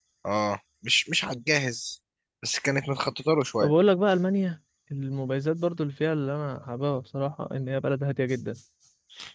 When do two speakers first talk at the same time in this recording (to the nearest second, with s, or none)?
none